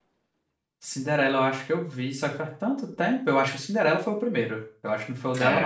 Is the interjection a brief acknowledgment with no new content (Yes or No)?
No